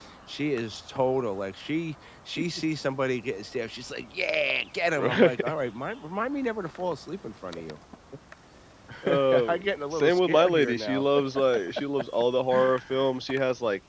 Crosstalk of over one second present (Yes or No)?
Yes